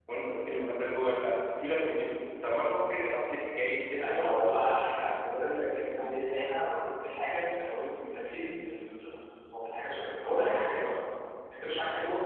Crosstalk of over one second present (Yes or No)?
No